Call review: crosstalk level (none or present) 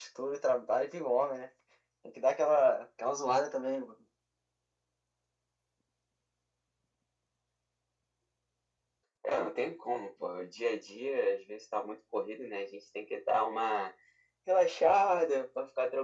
none